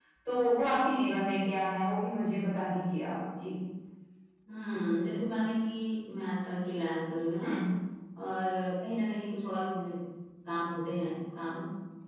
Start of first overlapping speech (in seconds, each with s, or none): none